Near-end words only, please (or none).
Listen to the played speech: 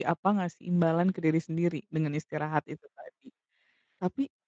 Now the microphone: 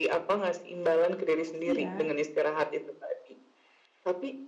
"Makasih ya,